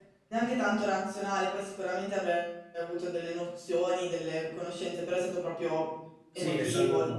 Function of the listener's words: taking over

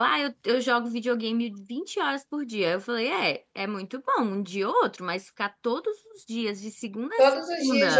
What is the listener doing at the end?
taking over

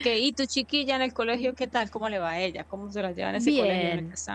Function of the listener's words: taking over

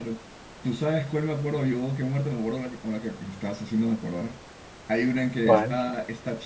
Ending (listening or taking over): listening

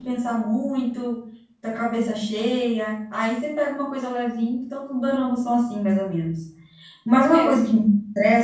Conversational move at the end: listening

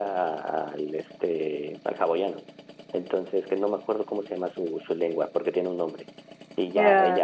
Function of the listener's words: listening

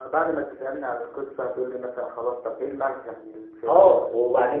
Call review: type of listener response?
taking over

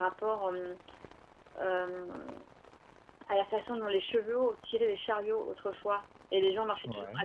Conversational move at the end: listening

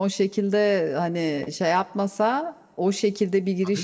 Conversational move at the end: listening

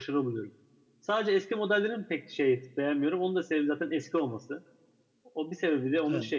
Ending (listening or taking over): listening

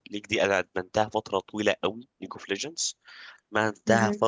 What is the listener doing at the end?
listening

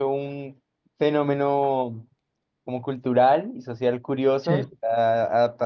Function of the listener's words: listening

